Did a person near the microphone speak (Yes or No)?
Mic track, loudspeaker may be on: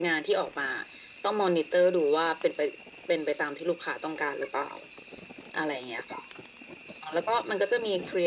No